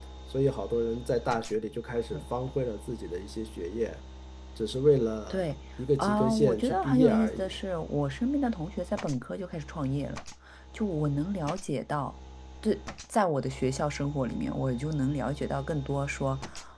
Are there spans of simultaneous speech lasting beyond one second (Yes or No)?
Yes